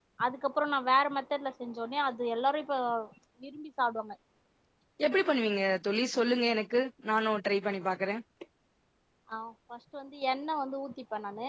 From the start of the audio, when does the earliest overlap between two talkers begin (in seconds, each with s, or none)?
none